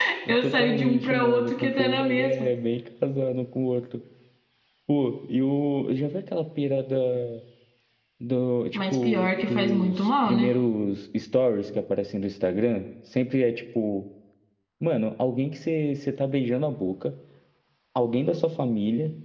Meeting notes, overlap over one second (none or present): present